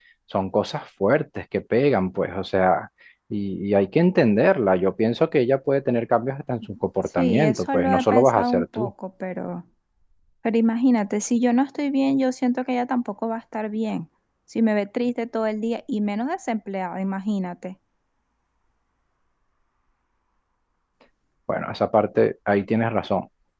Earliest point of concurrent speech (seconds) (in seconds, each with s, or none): 7.2 s